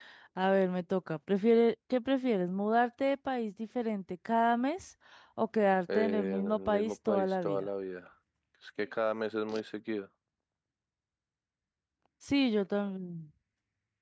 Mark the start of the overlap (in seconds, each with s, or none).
5.9 s